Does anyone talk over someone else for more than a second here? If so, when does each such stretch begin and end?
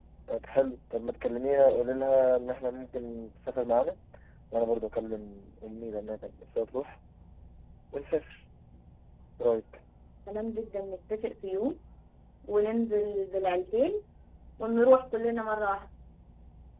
none

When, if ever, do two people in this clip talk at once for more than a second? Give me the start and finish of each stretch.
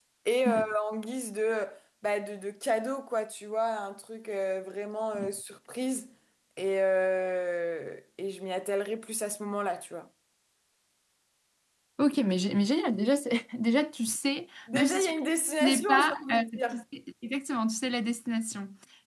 15.6-16.8

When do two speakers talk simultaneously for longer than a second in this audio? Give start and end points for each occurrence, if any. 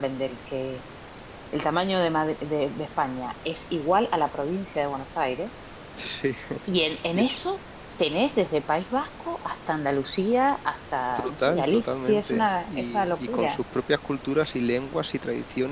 11.2-13.6

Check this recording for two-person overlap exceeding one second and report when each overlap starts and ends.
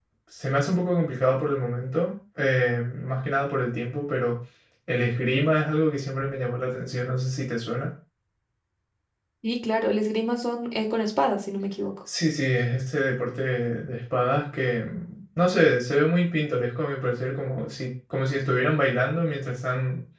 none

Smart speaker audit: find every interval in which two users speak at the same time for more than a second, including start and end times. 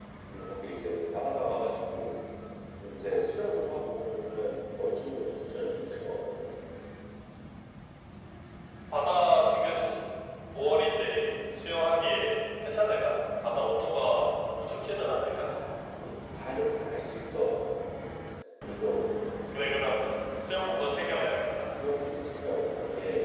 none

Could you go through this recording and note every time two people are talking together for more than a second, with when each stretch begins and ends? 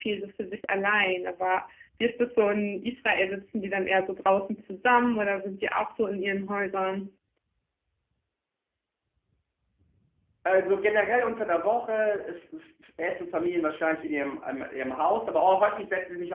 none

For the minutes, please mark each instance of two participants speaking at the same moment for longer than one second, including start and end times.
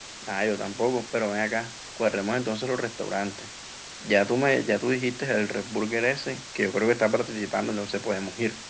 none

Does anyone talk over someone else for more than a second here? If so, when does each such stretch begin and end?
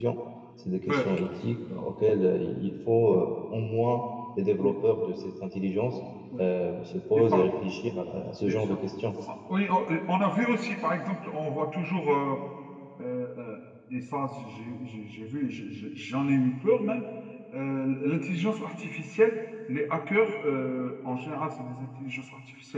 none

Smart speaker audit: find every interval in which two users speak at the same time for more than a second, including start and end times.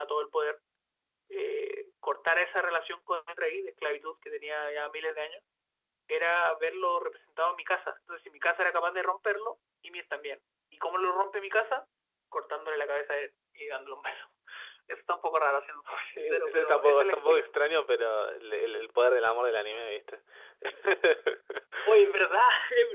16.2-17.4

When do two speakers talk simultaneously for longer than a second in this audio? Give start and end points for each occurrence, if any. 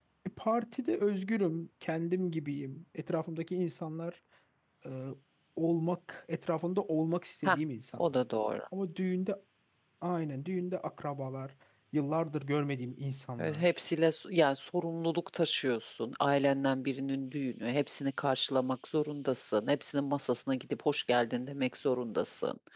none

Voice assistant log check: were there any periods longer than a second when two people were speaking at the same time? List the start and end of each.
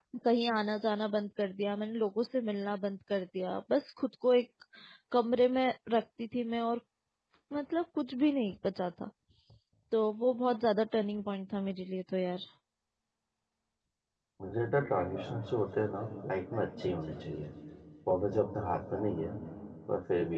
none

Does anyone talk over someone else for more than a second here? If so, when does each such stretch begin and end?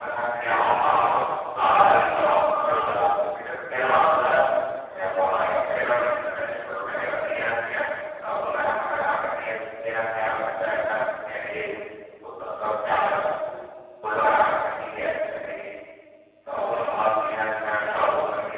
1.6-3.0

